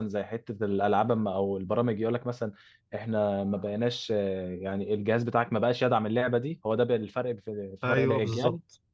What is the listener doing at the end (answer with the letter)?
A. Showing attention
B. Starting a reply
B